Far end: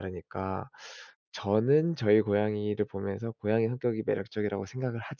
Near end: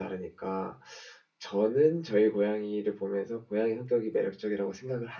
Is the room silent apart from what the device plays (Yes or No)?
Yes